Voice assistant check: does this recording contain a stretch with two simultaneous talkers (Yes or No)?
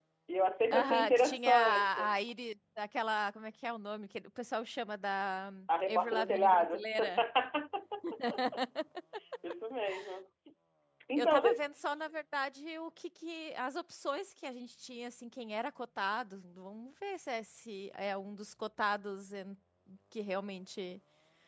Yes